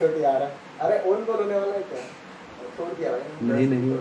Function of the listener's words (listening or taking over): listening